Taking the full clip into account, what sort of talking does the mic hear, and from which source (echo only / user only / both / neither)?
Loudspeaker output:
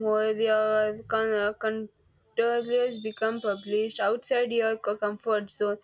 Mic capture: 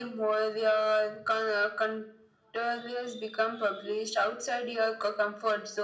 echo only